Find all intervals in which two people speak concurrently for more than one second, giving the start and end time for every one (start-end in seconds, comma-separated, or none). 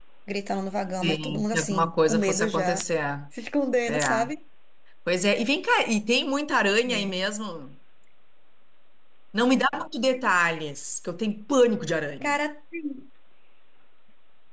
1.0-2.9